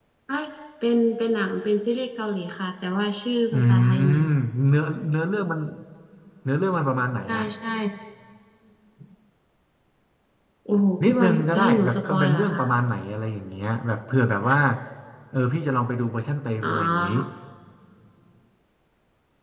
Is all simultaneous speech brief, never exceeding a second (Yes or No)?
No